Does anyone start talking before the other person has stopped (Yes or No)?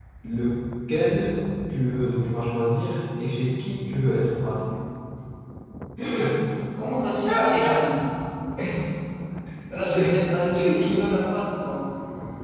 Yes